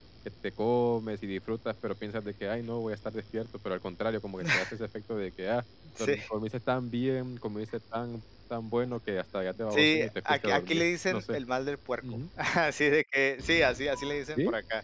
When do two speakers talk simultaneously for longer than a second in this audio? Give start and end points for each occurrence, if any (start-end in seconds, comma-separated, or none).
9.7-11.4